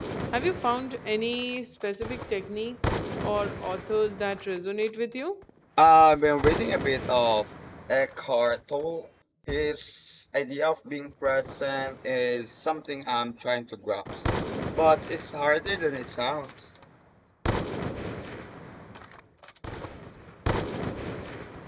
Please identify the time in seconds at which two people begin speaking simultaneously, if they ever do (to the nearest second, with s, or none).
none